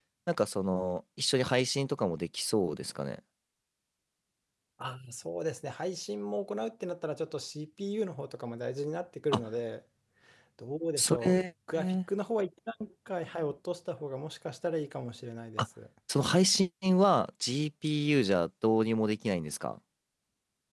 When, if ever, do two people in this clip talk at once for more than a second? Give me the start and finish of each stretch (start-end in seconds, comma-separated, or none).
none